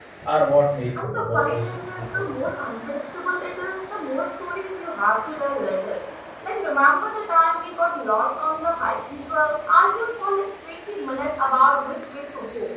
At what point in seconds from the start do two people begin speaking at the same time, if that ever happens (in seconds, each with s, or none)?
1.0 s